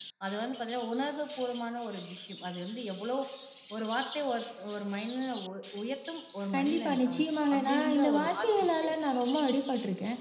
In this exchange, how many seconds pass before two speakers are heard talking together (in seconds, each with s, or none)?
6.5 s